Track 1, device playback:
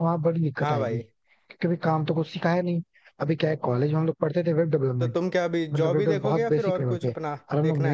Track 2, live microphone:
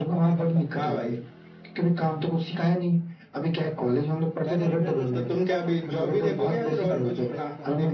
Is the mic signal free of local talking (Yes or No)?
No